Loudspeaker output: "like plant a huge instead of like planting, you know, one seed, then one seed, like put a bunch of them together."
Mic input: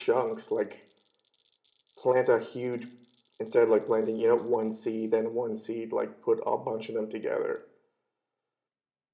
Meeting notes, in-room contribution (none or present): none